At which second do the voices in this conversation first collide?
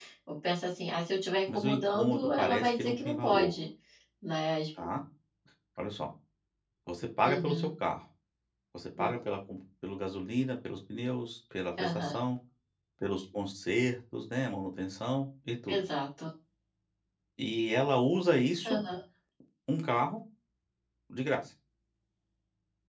1.5 s

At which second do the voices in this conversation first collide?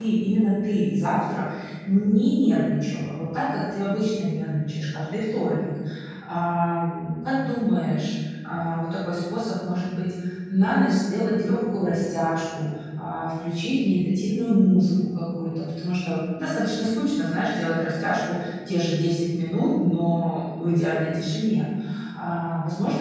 none

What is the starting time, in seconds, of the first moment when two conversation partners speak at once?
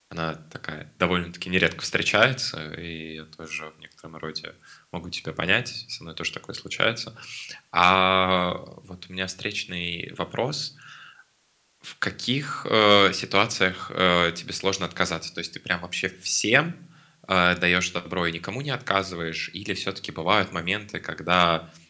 none

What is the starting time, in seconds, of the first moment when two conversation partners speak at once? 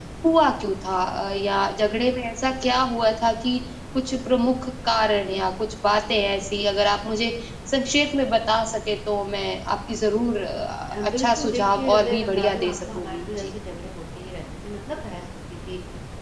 10.9 s

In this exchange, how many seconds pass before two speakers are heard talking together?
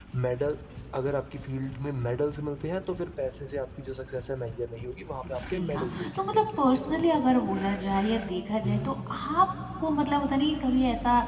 5.3 s

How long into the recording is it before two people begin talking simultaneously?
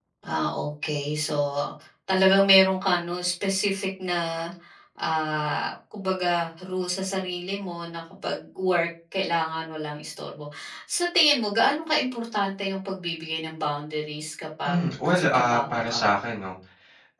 14.6 s

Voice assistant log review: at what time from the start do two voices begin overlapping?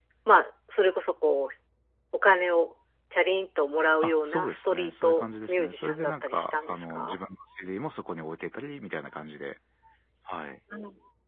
4.0 s

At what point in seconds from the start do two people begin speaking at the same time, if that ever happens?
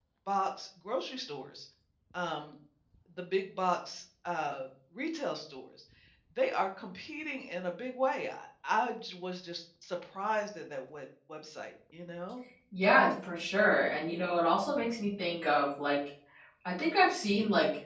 none

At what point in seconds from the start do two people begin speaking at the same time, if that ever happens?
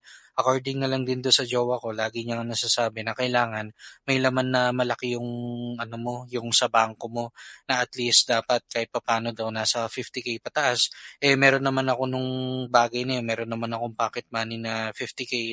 none

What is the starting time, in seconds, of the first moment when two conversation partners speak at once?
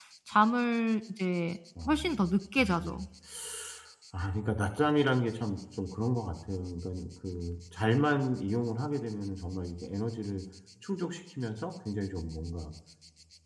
1.8 s

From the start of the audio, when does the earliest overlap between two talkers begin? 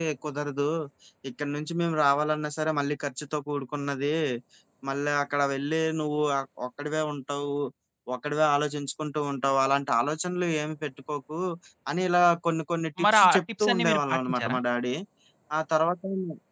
13.0 s

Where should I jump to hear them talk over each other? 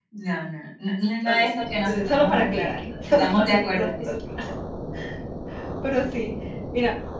1.2 s

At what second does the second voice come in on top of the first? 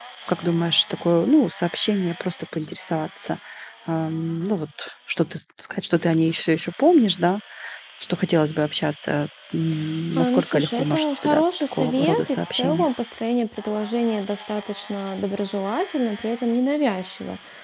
10.2 s

